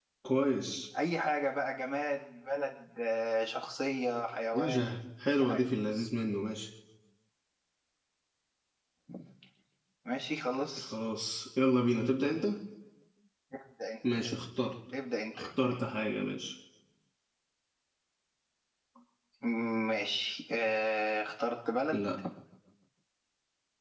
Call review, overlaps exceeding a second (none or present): none